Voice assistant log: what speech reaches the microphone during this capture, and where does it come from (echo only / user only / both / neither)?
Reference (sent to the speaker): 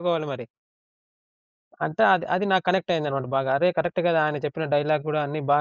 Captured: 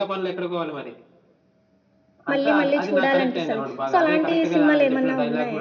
both